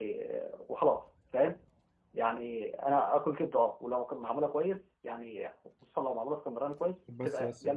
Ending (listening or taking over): taking over